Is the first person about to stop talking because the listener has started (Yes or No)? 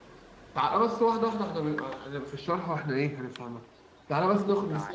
No